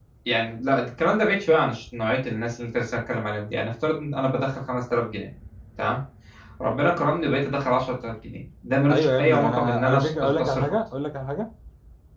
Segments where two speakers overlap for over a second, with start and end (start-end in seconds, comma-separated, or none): 8.9-10.8